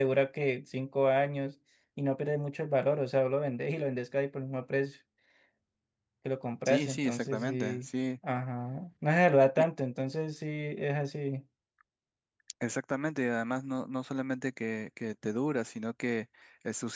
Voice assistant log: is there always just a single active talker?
No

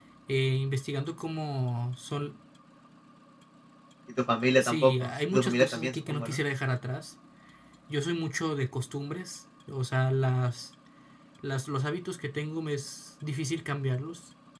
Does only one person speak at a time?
No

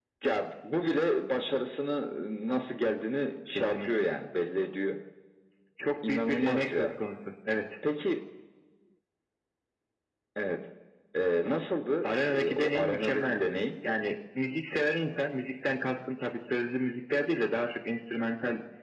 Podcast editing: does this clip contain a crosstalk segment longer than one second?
Yes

